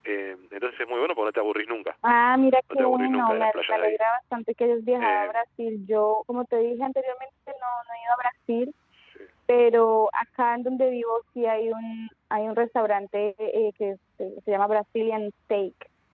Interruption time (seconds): 2.7 s

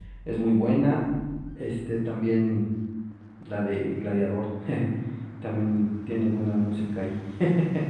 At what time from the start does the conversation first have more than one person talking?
none

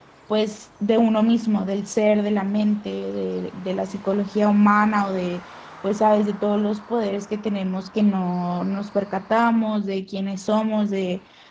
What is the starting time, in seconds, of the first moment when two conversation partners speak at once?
none

